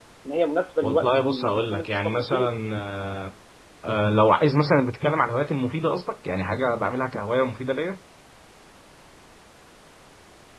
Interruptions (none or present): present